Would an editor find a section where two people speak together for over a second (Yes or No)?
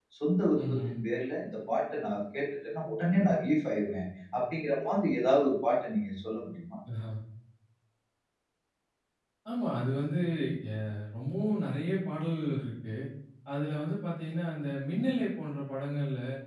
No